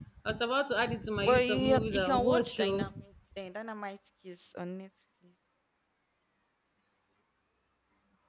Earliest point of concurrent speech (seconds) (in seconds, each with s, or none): 1.2 s